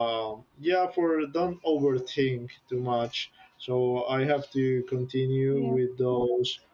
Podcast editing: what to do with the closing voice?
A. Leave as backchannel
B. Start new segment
A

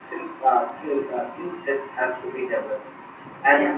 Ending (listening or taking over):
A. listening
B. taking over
A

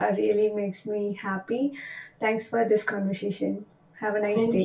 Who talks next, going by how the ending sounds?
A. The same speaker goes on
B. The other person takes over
B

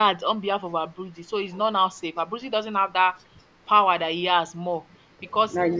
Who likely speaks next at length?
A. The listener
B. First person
B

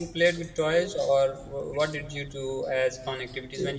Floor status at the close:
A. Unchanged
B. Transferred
A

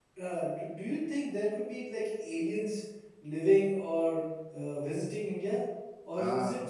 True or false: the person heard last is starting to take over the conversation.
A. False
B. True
A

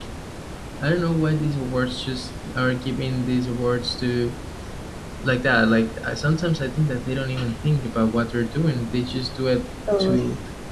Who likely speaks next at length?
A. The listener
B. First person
B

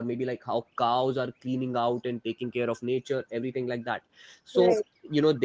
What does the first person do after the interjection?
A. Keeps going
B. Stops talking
A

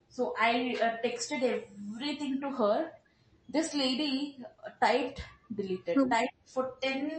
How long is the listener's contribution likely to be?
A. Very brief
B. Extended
A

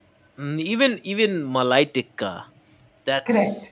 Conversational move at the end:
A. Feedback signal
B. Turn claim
A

